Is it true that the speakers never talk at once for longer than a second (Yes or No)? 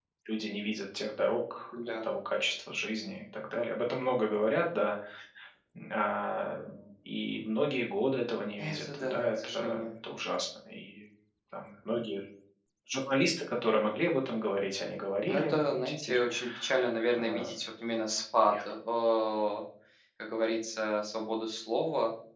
No